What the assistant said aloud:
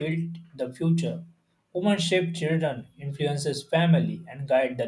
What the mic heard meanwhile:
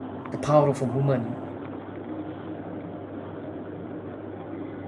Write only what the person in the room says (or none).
the power of a woman,